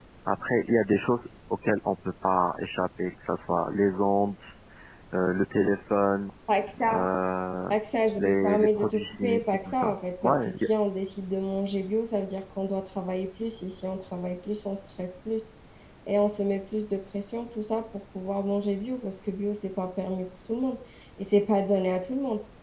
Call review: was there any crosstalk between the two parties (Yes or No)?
Yes